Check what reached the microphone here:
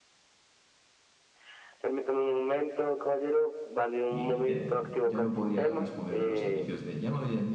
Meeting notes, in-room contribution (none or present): present